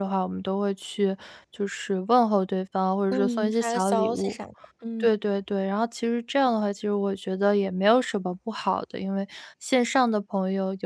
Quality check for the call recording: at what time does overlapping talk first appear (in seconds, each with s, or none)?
3.1 s